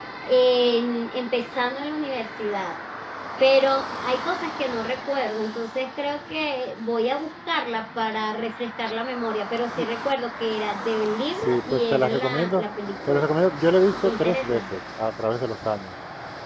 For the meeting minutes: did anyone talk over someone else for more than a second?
Yes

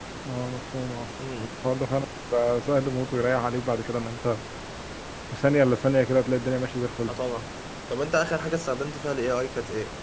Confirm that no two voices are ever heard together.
Yes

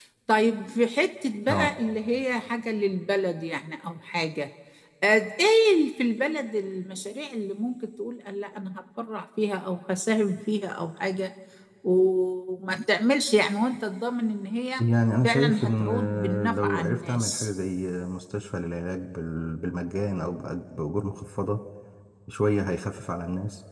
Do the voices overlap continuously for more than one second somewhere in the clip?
Yes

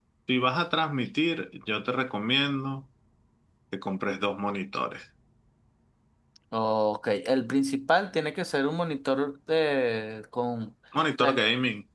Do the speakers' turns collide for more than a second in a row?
No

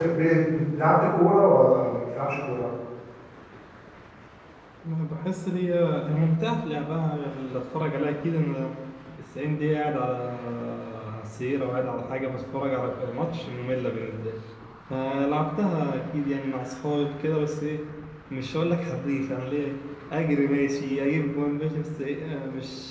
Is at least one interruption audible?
No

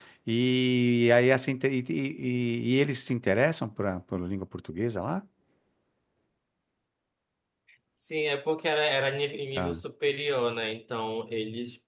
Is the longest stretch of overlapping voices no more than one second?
Yes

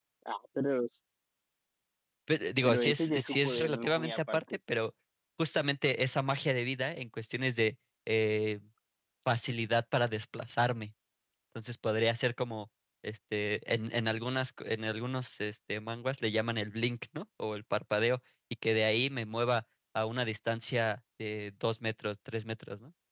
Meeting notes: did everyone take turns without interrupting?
No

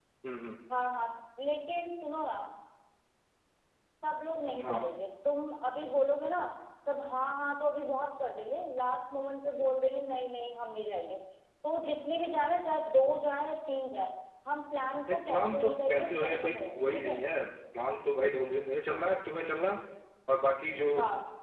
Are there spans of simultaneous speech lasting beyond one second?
Yes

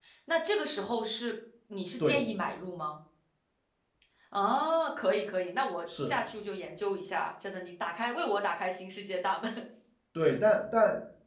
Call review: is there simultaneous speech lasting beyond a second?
No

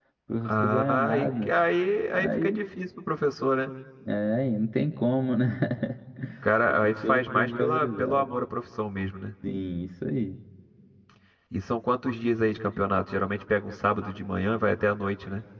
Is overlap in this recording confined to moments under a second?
No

